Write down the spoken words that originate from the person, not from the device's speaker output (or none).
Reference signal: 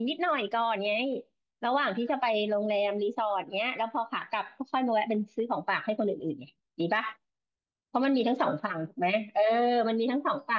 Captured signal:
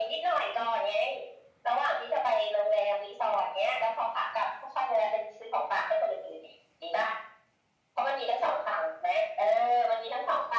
none